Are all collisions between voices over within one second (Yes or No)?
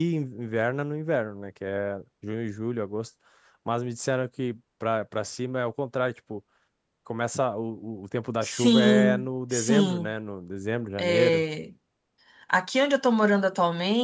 No